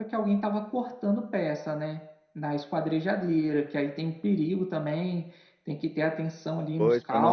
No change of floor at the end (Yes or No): No